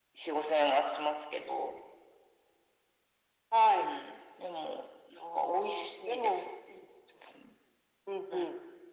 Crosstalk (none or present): present